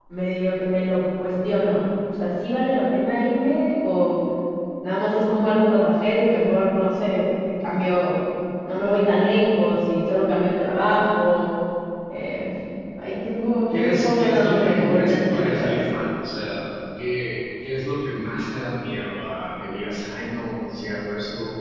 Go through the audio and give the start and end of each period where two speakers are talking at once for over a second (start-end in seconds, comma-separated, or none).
13.7-15.8